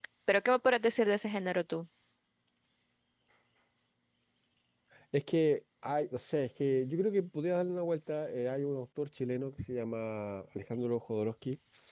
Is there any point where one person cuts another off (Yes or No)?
No